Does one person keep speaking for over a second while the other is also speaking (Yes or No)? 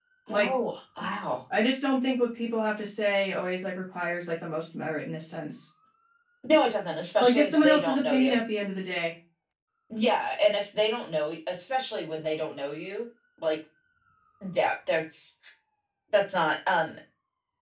Yes